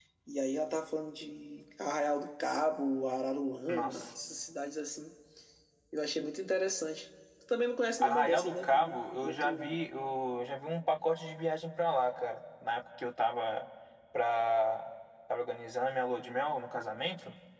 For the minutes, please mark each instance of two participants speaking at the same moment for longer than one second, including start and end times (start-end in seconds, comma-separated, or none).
8.0-9.8